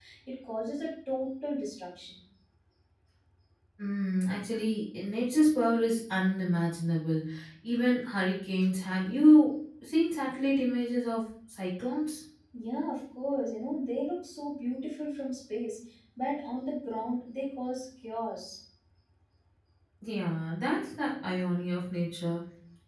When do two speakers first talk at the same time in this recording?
none

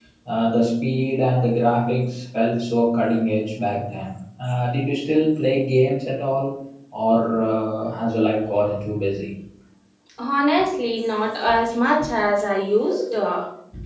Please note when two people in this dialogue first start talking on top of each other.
none

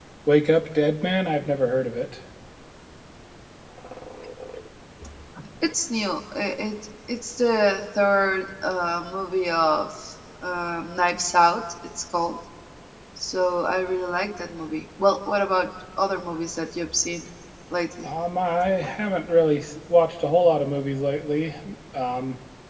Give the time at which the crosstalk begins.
none

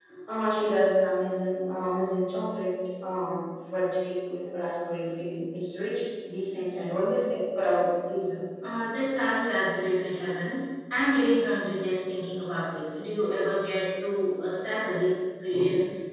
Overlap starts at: none

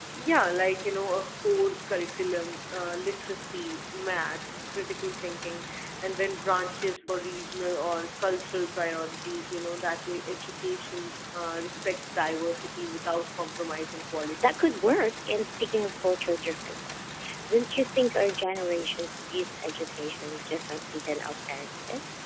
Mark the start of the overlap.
none

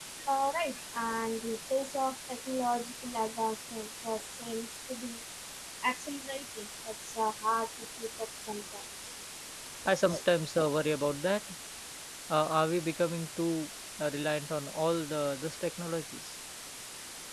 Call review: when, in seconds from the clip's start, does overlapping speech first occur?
none

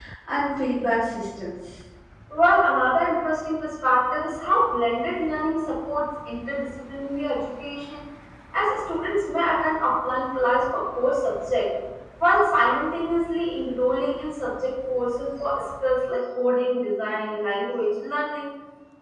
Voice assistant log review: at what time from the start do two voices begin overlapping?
none

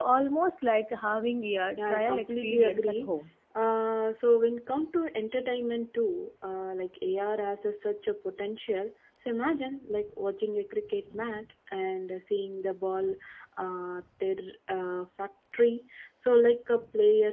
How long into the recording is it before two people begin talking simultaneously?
1.8 s

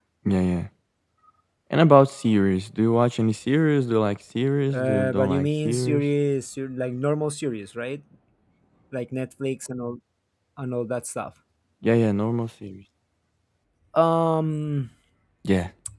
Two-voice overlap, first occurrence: 4.7 s

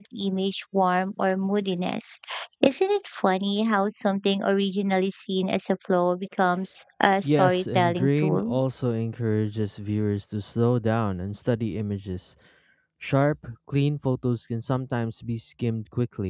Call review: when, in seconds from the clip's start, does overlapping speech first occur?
7.2 s

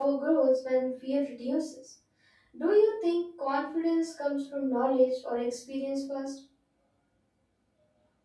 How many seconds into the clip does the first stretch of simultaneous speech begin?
none

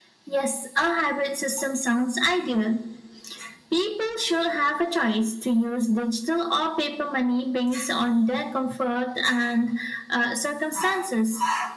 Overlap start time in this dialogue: none

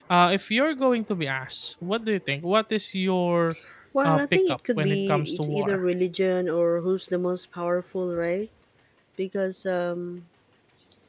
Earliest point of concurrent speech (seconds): 4.0 s

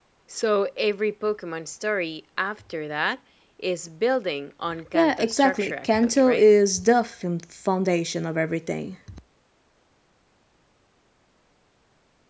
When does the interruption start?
4.9 s

